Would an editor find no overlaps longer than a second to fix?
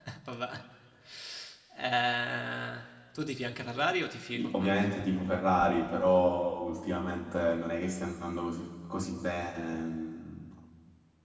Yes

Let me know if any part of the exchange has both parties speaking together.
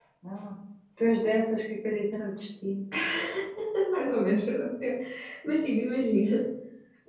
No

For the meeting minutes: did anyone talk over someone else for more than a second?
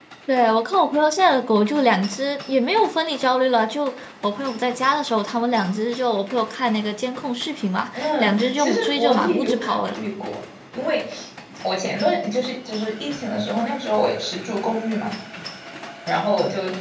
Yes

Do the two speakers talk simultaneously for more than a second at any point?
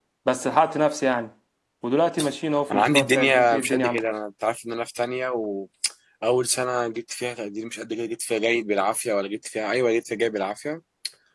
Yes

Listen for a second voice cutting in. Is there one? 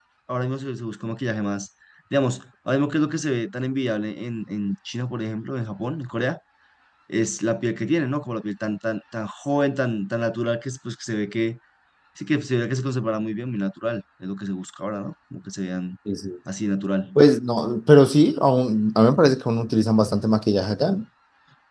No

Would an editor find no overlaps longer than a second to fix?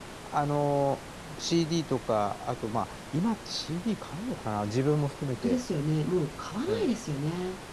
Yes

